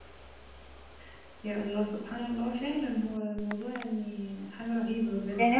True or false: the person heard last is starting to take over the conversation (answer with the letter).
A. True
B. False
A